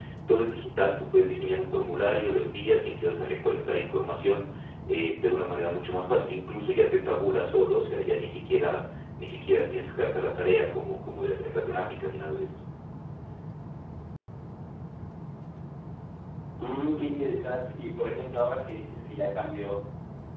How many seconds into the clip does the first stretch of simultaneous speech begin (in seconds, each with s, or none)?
none